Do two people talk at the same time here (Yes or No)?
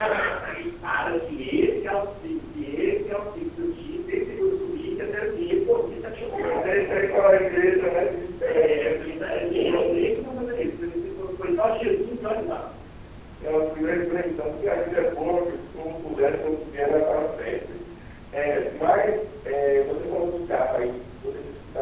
Yes